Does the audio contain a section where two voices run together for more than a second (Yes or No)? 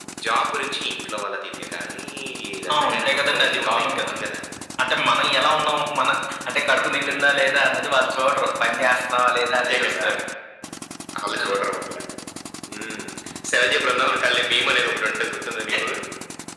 Yes